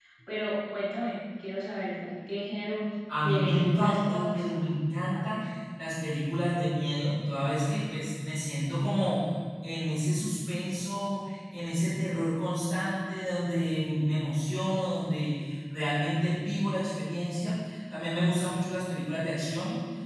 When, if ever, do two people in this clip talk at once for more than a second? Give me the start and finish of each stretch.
3.2-4.7

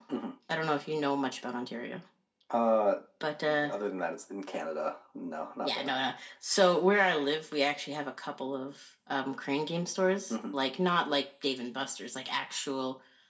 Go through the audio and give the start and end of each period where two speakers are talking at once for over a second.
none

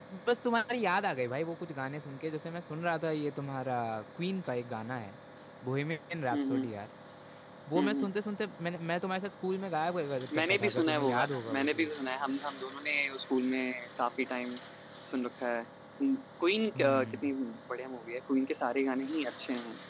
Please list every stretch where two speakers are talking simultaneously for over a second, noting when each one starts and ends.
10.3-11.9

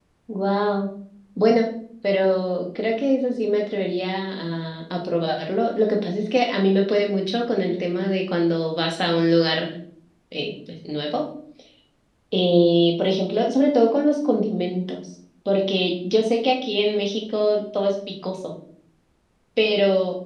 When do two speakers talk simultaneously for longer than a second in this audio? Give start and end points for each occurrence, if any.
none

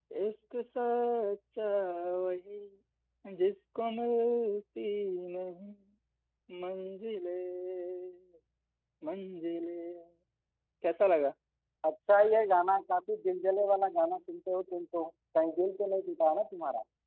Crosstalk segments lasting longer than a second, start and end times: none

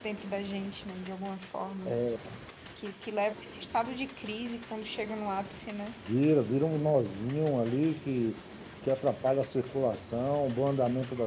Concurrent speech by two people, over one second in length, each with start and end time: none

